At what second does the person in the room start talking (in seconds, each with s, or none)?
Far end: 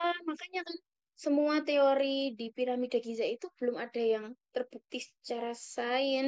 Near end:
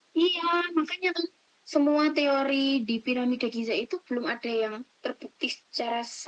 none